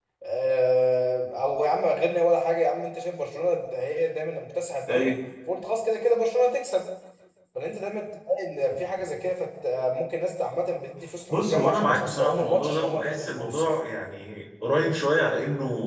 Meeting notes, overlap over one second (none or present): present